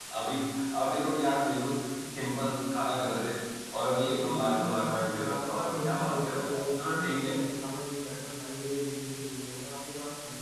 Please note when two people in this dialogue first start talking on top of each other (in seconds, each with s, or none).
4.0 s